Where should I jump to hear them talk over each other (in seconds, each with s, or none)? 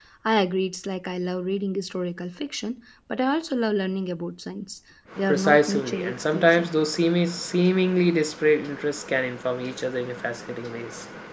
5.1 s